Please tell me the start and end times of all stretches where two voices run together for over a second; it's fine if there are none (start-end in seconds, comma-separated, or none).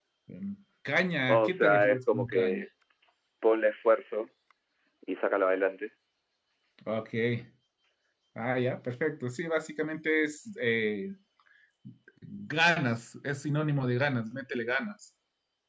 1.3-2.6